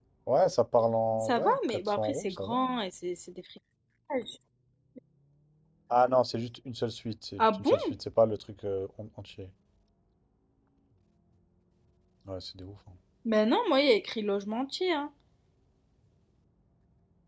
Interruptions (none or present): present